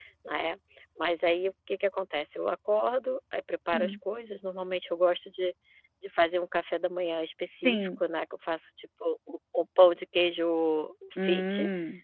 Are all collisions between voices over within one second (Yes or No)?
Yes